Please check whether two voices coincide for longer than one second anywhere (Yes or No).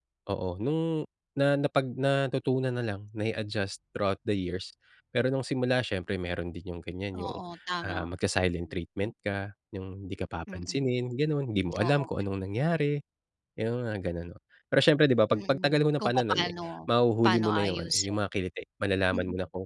Yes